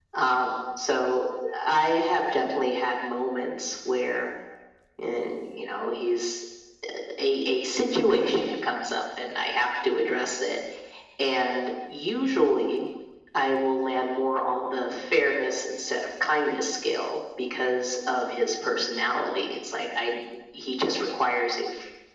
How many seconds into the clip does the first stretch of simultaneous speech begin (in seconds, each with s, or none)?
none